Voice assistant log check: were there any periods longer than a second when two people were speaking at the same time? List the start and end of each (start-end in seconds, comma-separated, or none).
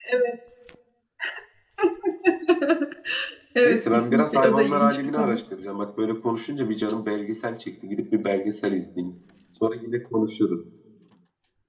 3.6-5.4